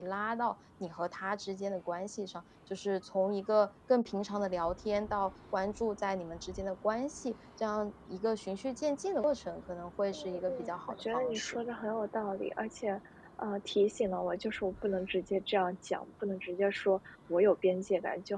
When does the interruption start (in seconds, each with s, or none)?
10.1 s